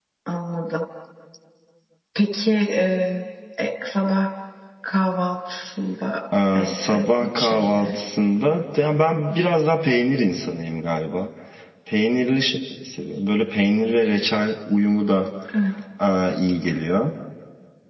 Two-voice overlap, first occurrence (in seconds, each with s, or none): 6.3 s